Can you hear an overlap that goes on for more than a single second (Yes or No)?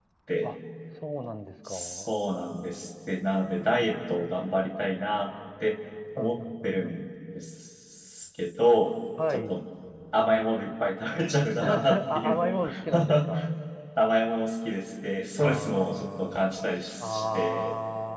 Yes